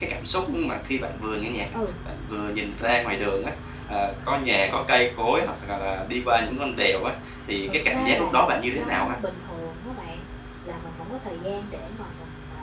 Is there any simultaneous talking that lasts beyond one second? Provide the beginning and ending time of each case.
7.7-9.2

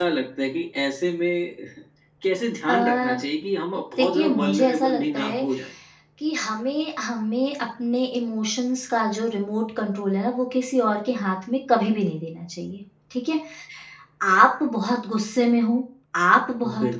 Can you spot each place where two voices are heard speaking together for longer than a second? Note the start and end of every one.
4.0-5.4

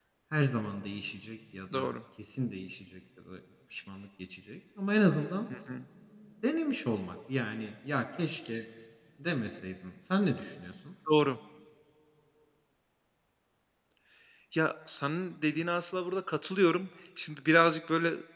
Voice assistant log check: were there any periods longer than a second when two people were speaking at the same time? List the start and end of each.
none

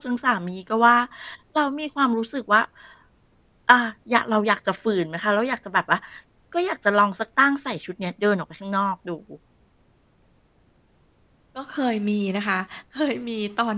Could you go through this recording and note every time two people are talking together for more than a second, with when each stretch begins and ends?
none

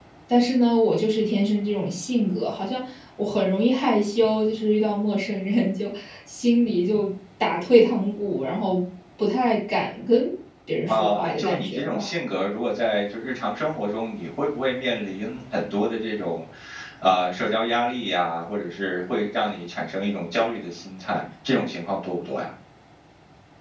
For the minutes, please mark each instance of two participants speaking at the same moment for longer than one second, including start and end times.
10.9-12.1

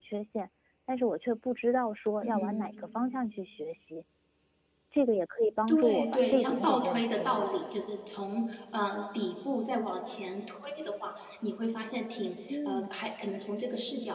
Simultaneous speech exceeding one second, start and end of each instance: 5.7-7.5

